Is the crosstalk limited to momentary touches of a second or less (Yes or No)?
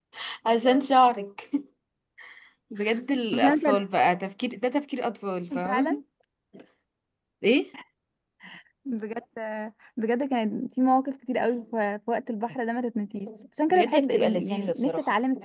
No